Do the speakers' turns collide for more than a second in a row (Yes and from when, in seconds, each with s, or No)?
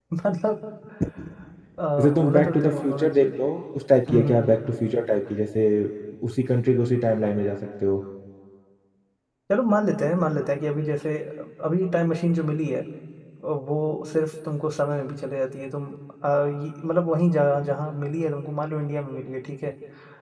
Yes, from 2.0 s